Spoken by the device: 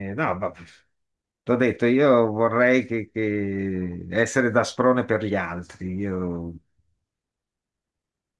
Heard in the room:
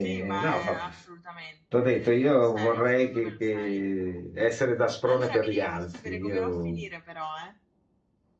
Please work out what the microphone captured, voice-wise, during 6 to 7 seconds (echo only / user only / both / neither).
both